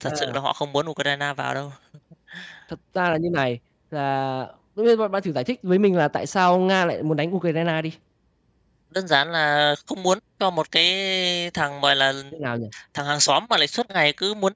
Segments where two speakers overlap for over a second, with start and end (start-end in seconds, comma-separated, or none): none